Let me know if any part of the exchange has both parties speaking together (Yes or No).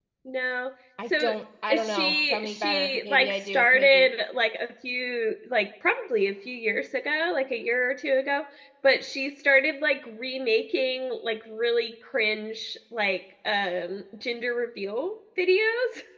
Yes